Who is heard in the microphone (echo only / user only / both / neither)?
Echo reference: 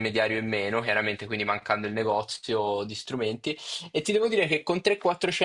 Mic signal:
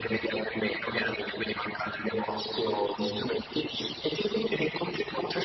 echo only